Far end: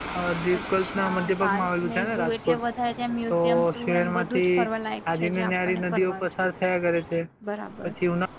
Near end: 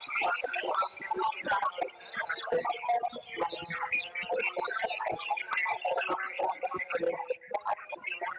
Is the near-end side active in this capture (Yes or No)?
No